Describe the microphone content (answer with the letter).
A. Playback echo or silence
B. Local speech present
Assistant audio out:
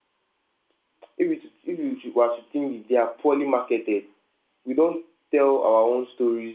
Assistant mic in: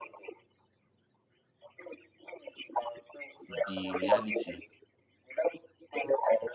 B